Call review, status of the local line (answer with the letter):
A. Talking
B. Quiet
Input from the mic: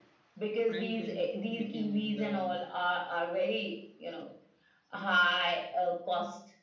A